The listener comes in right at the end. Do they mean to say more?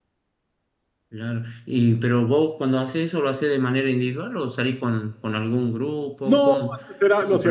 Yes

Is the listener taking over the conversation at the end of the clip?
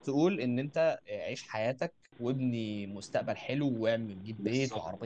No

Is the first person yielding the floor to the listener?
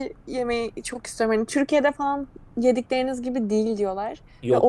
No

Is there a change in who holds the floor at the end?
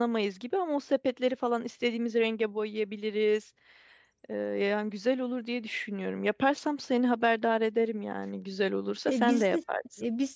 Yes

